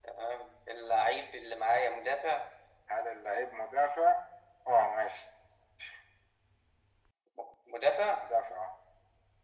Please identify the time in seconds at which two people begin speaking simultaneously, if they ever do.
none

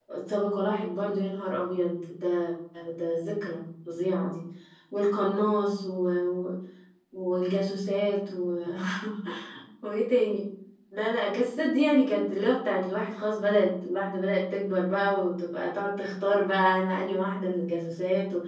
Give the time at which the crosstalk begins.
none

